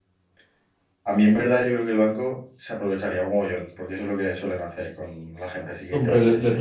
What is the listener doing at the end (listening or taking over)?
taking over